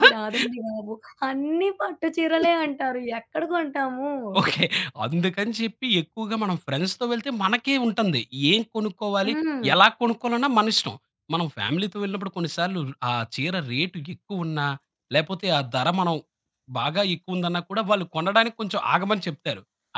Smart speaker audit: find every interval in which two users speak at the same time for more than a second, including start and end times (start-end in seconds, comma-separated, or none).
none